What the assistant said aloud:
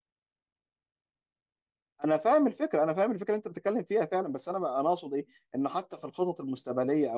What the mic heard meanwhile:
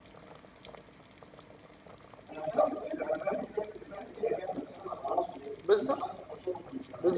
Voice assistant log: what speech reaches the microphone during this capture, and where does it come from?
both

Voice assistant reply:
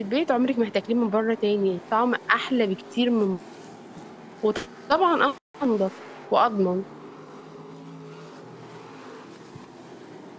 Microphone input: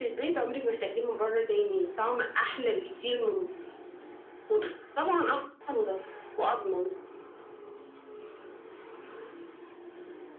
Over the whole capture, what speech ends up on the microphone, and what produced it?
echo only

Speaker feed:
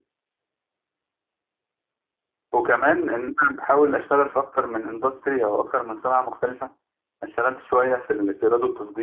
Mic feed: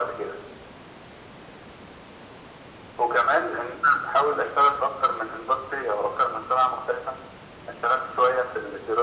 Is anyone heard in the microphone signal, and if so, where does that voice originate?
echo only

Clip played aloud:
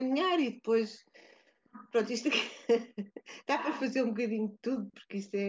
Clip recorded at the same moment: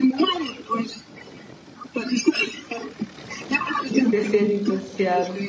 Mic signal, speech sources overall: both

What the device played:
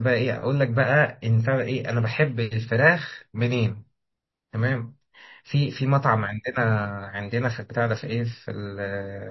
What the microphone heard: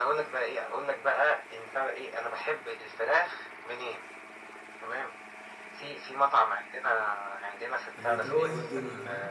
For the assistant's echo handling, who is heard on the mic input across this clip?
both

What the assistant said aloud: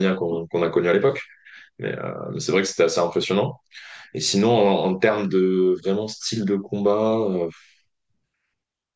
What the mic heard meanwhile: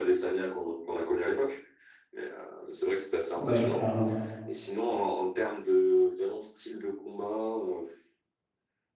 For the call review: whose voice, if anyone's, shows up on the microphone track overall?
both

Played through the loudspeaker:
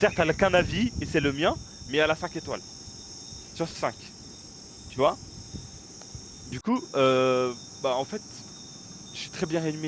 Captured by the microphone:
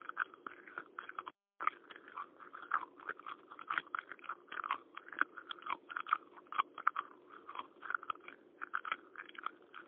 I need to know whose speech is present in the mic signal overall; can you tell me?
neither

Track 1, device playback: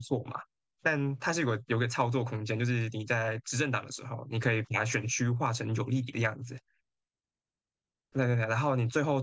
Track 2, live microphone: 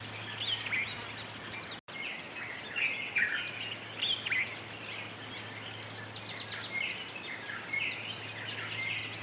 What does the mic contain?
neither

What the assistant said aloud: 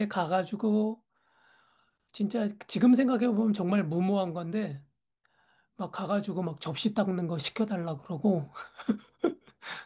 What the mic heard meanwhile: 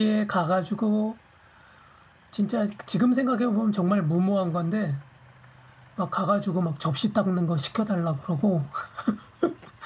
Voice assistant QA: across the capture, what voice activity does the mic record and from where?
echo only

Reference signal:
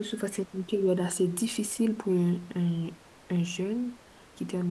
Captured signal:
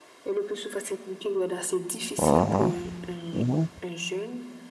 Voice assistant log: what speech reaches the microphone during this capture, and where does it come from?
both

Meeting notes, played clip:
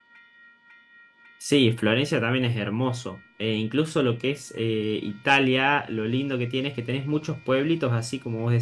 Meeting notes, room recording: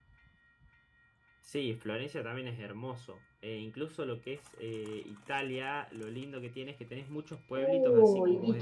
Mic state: both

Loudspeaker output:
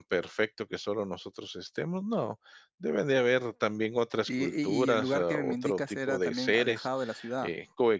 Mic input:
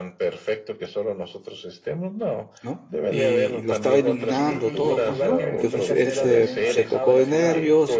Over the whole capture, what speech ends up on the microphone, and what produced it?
both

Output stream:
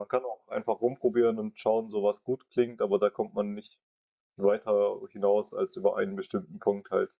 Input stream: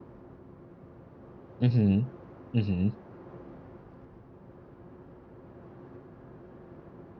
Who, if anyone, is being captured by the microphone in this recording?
user only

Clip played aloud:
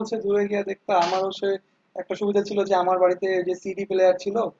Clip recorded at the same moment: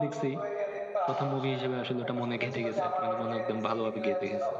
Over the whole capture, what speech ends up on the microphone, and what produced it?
both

